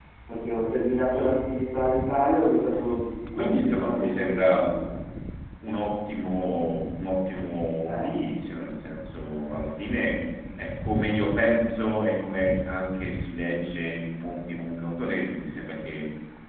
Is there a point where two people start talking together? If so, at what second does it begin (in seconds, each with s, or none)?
3.4 s